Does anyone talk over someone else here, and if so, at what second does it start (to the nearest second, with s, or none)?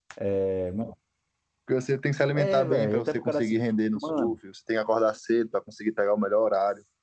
2 s